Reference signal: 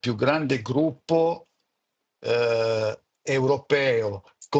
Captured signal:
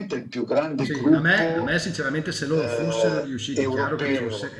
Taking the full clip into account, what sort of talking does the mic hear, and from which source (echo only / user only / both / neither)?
both